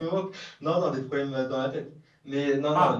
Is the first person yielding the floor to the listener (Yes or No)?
No